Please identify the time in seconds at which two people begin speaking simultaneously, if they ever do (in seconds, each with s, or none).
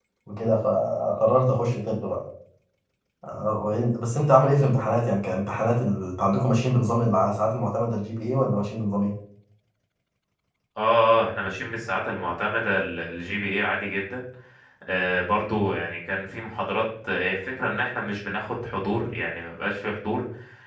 none